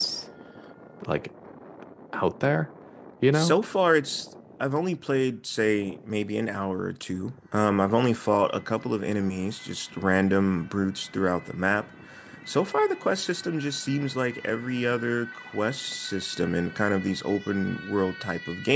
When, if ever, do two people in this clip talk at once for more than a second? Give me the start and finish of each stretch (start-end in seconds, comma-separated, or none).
none